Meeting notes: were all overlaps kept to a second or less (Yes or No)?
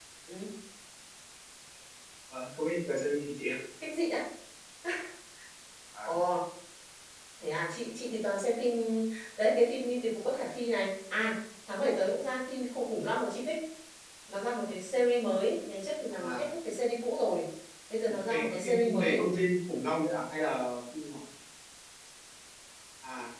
No